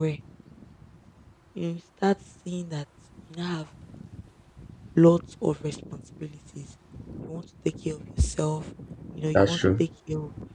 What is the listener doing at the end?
listening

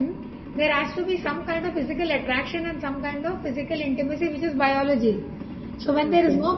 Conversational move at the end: listening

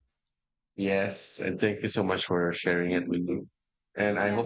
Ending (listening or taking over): listening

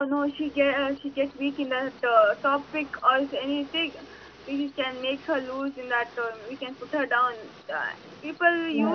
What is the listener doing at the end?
listening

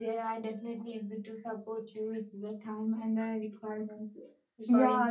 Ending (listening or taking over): taking over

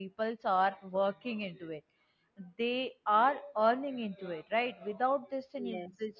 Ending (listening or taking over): listening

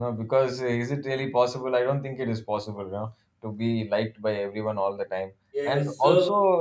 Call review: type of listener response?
listening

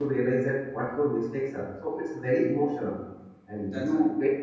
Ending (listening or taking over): listening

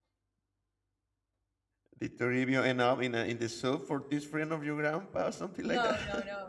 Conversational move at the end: taking over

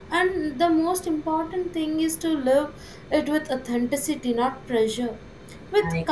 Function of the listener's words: listening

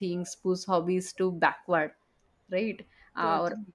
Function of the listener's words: listening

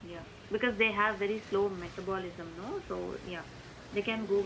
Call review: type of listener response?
taking over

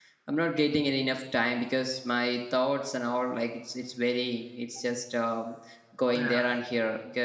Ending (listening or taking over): listening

